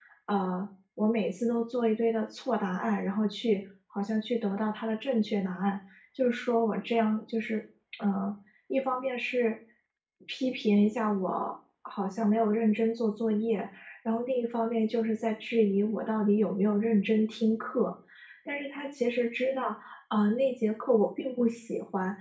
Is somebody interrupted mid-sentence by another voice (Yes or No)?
No